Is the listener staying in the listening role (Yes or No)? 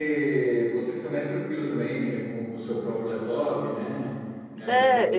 No